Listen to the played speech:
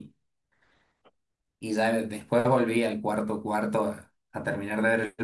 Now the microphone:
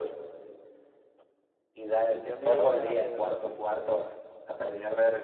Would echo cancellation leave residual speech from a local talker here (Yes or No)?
Yes